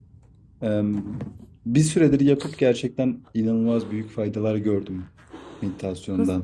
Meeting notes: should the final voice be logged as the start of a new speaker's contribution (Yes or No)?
Yes